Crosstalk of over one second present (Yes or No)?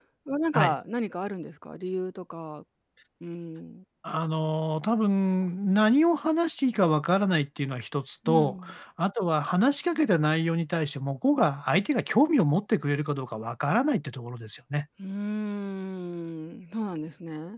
No